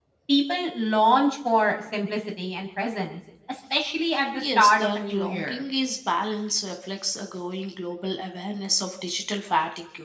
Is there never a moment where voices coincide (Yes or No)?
No